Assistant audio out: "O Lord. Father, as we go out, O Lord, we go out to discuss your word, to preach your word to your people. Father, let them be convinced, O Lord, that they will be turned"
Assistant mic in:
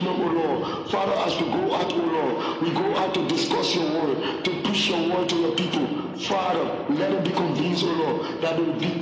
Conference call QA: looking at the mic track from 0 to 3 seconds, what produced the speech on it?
echo only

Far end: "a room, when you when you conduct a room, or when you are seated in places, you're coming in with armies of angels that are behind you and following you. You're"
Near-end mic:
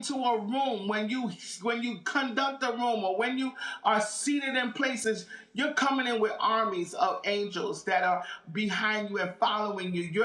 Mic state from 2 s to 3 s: echo only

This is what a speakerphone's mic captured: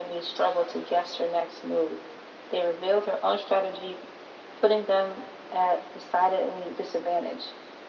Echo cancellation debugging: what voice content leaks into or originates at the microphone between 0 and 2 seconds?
echo only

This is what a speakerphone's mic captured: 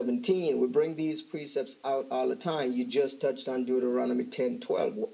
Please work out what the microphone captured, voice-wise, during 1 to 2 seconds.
echo only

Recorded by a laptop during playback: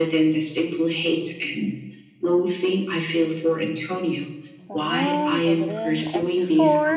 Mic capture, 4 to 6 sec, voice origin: both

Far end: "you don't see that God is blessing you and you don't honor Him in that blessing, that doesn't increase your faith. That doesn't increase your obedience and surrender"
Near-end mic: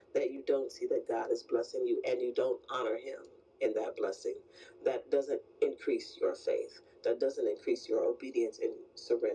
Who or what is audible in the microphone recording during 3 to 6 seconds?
echo only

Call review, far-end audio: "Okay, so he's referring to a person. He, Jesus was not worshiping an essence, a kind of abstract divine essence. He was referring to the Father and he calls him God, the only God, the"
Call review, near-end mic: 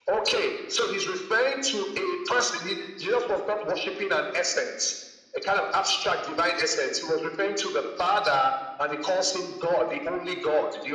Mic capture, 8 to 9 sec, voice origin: echo only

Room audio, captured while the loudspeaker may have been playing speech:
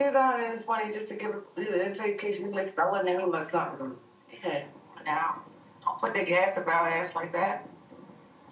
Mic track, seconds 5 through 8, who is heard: user only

